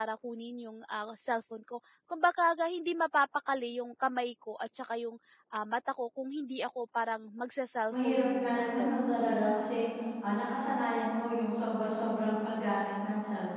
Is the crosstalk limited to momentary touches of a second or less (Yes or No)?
No